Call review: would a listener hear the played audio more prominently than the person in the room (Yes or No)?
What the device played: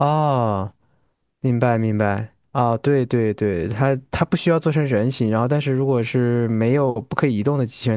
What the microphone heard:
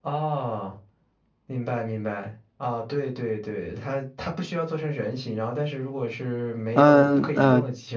No